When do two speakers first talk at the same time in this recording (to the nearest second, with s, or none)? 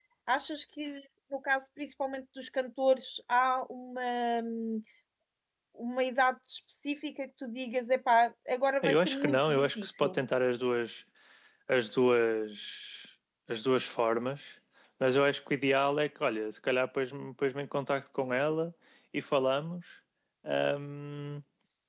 9 s